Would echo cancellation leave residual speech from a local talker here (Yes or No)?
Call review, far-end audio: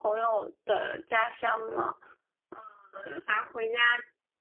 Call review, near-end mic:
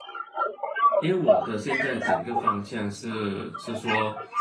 Yes